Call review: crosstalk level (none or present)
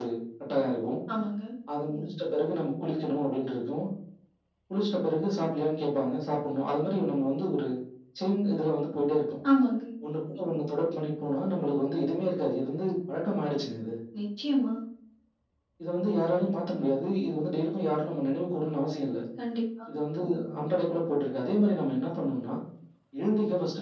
none